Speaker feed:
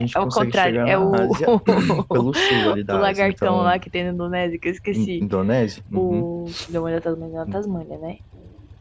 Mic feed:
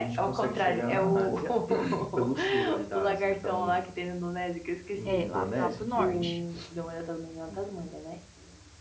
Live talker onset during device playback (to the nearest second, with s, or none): 5 s